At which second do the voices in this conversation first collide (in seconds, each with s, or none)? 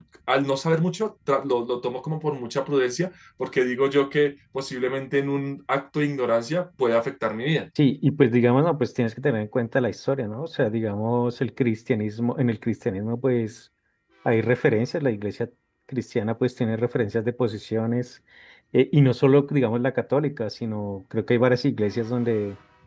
none